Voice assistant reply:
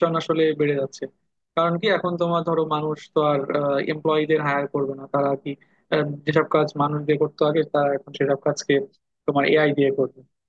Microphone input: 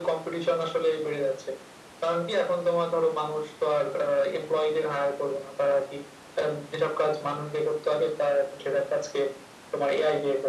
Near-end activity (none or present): none